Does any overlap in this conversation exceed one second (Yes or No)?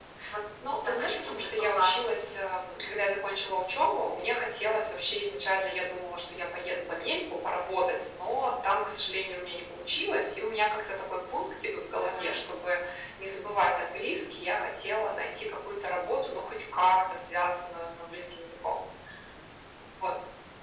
Yes